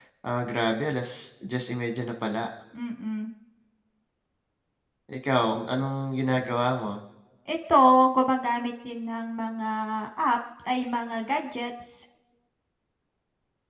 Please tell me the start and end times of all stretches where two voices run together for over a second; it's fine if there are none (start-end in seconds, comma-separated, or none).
none